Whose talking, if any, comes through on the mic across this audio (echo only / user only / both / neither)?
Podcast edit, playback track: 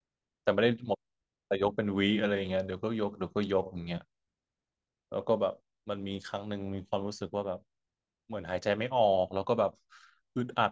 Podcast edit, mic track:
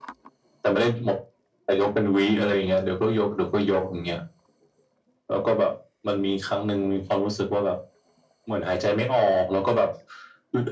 echo only